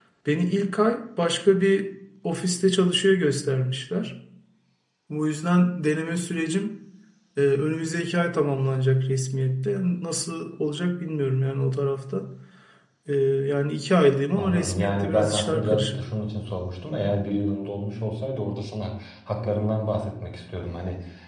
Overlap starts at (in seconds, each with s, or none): 14.4 s